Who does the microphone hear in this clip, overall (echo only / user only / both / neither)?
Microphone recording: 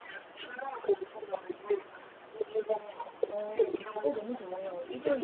both